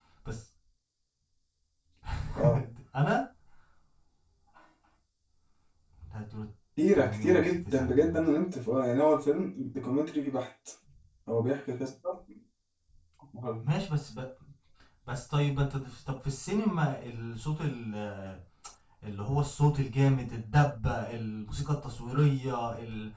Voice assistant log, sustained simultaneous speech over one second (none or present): present